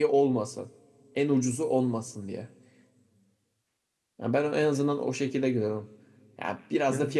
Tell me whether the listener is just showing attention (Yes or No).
Yes